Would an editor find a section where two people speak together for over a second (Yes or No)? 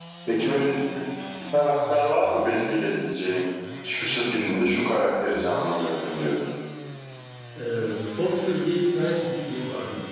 No